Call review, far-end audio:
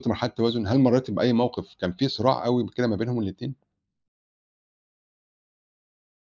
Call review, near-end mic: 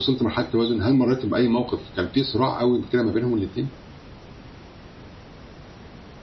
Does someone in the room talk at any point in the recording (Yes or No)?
No